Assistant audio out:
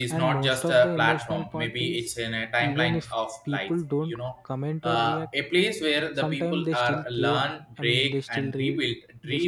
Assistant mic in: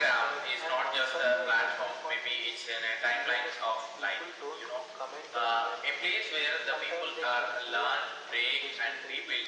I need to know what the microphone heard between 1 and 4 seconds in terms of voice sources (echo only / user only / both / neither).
echo only